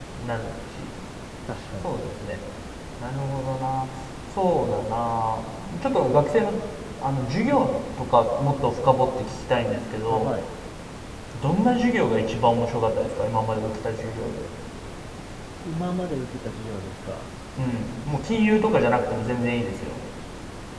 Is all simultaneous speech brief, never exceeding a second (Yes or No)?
Yes